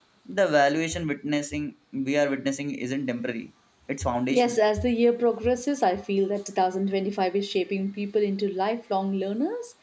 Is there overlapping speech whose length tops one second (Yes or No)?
No